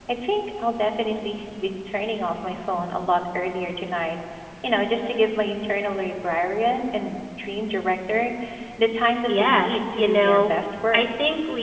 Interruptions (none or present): present